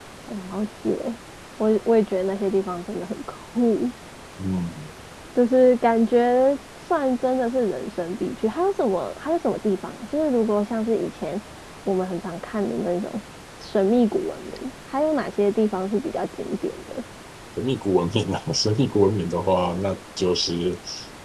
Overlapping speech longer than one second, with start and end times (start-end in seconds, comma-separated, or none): none